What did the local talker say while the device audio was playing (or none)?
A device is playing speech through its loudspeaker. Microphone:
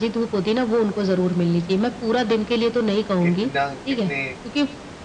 कितना कितने